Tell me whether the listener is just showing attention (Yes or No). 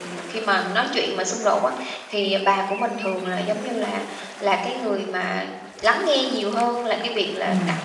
Yes